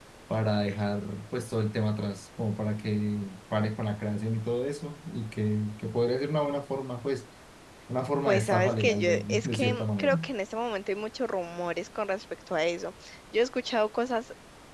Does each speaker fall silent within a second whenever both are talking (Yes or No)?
No